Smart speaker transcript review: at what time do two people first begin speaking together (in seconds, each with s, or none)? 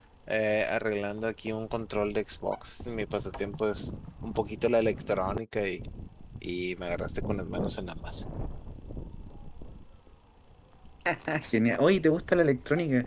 none